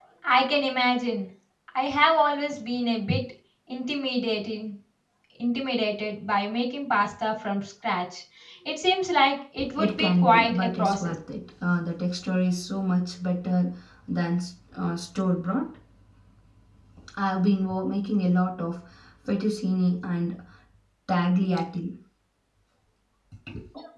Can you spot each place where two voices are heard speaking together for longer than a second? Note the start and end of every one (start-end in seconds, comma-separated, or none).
9.8-11.1